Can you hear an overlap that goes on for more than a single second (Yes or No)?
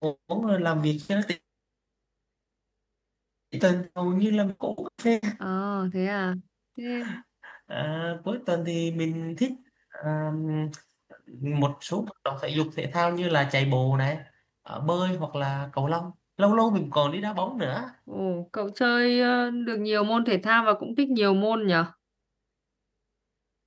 No